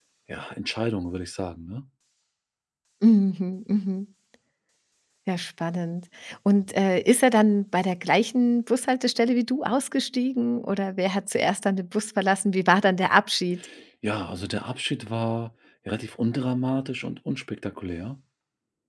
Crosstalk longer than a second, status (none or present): none